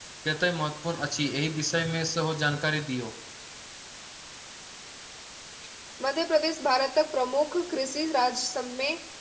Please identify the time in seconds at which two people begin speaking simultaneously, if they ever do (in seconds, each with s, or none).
none